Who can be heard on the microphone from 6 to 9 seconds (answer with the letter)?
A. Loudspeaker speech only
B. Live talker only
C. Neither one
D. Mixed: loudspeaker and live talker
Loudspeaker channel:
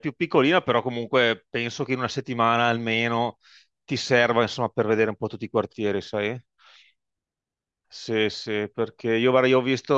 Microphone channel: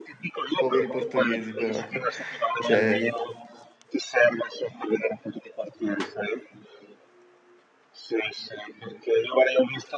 A